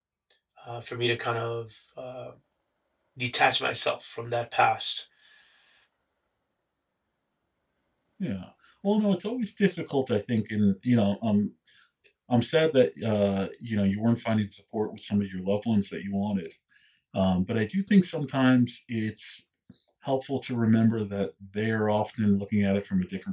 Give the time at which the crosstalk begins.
none

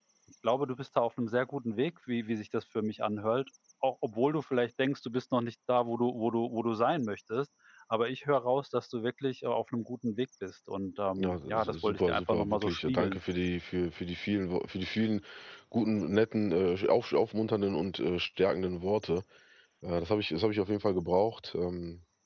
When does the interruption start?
11.2 s

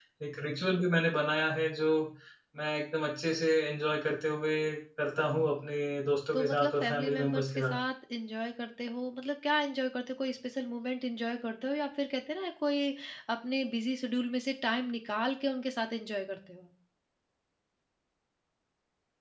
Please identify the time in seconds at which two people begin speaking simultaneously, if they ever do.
6.3 s

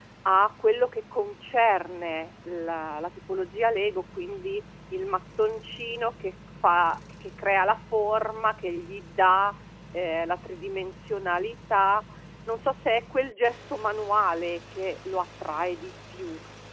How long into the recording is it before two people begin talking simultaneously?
none

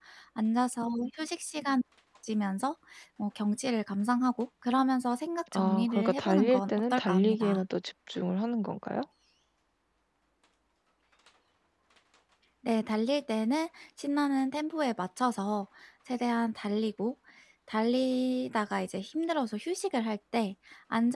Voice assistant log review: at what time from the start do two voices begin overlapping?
5.5 s

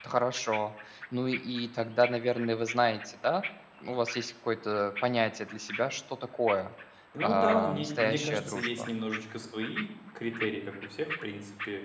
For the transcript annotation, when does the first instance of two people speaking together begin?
7.2 s

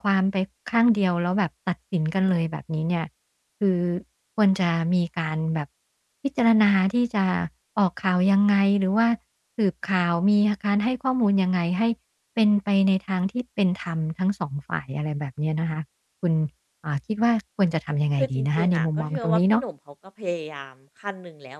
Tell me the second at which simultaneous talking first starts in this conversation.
18.2 s

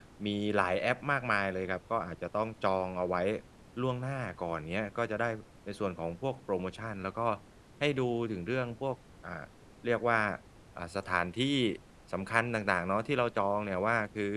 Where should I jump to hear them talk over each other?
none

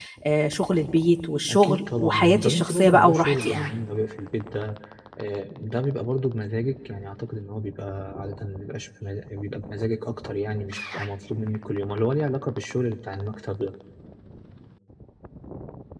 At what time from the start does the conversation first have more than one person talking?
1.5 s

